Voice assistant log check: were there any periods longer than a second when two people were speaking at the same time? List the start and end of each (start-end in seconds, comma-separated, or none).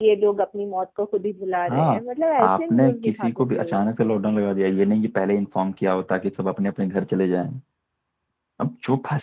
2.4-3.8